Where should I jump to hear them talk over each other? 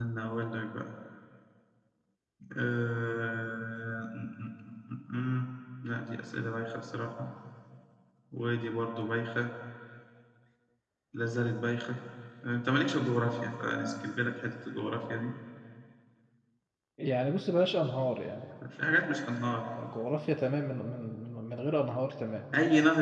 none

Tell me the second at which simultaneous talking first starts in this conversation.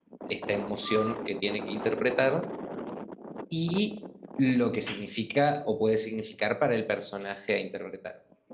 none

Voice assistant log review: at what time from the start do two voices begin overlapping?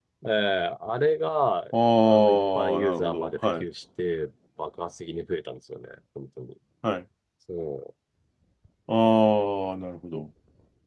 2.0 s

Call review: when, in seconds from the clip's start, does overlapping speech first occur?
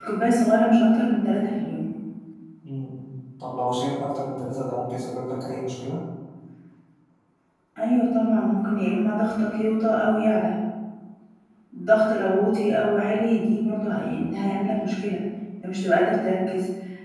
none

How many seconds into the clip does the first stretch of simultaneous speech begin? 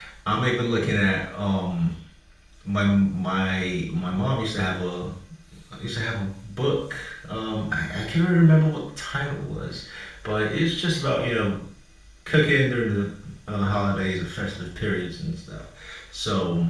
none

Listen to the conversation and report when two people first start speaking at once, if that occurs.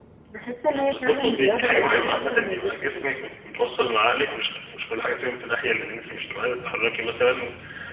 0.6 s

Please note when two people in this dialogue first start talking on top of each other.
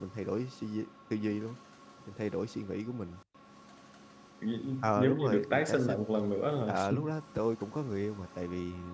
4.8 s

